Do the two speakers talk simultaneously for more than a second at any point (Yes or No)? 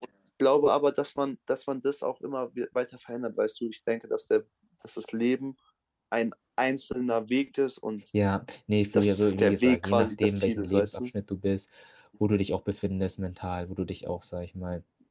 Yes